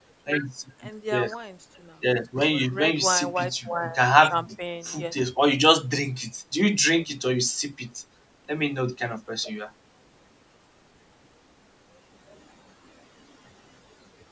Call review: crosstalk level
present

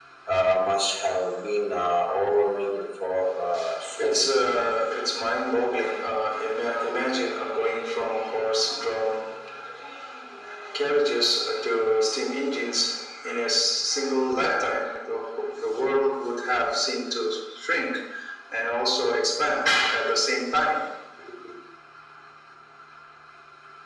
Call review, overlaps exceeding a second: none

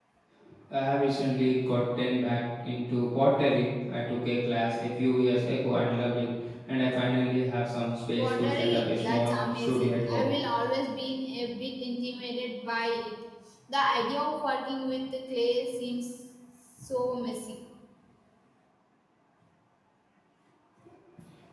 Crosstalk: present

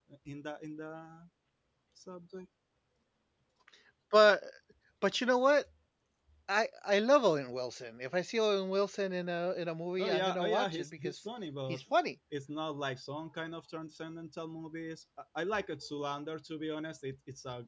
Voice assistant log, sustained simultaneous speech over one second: present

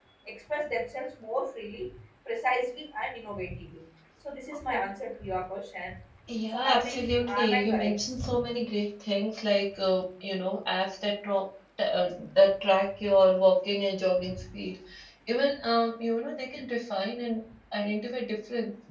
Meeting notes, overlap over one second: present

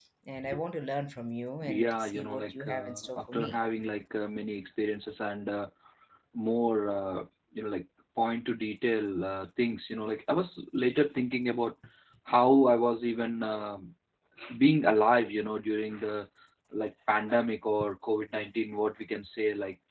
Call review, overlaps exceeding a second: present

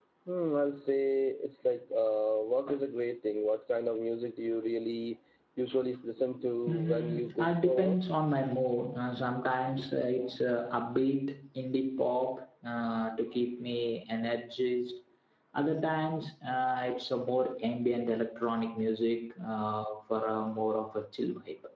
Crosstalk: present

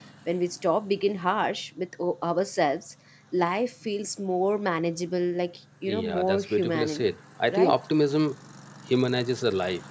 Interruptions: present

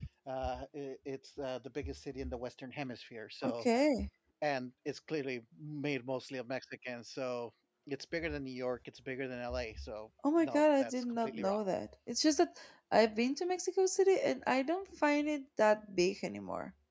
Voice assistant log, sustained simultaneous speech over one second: present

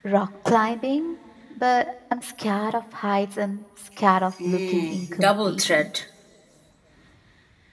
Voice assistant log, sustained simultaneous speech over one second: present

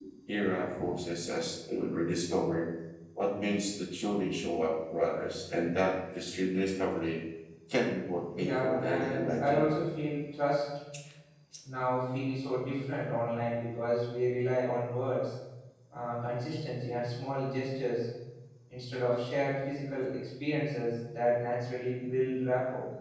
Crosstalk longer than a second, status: present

